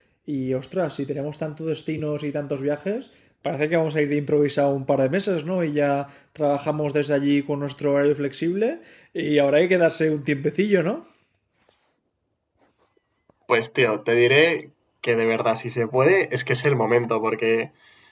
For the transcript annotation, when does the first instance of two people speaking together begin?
none

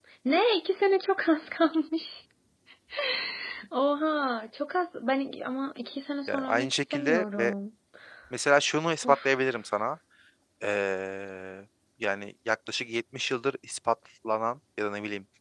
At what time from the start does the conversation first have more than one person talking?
6 s

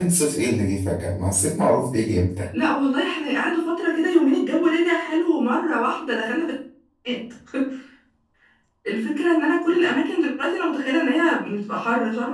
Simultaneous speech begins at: none

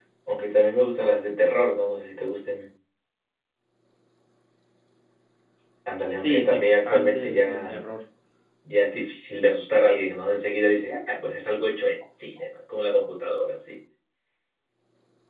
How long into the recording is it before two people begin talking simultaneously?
6 s

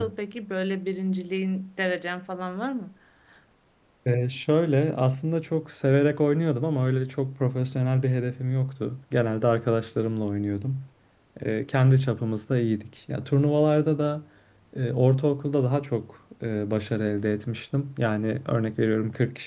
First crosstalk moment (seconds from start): none

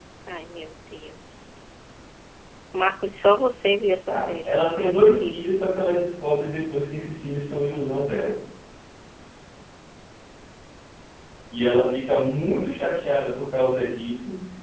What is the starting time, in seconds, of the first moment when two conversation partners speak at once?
4 s

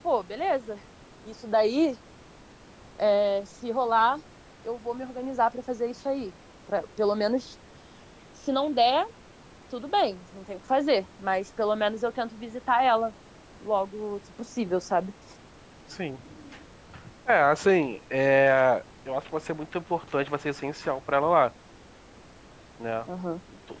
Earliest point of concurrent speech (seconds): none

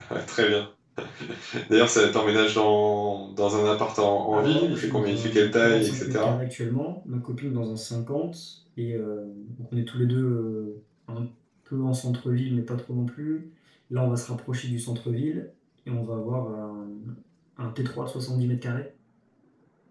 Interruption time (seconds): 4 s

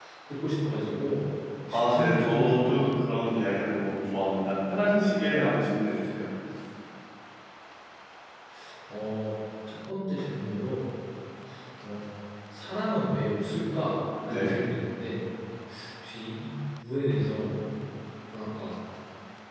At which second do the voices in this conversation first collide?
2 s

